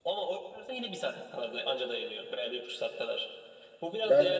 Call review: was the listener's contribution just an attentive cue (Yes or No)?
Yes